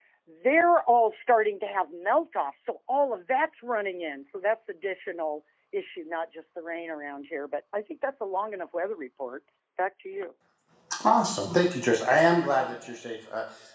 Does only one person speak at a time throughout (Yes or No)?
Yes